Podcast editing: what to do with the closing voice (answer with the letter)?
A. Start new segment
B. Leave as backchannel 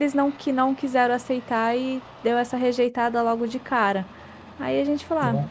B